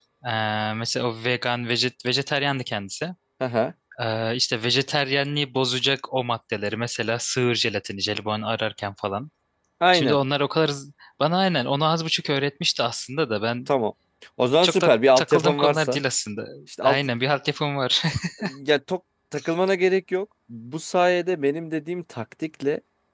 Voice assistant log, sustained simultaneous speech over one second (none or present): present